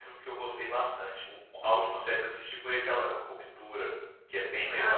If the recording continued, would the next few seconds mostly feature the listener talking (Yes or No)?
Yes